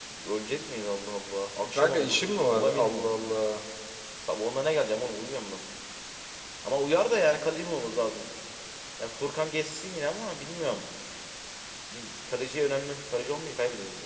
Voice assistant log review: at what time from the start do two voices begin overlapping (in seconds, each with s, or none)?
1.6 s